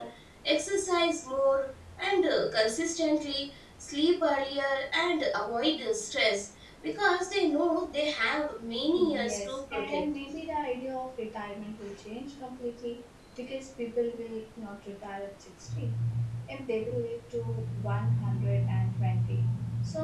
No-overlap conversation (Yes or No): No